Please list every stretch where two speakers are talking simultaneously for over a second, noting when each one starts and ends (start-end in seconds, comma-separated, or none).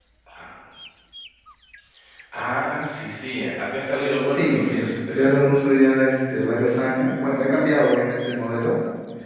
4.2-5.6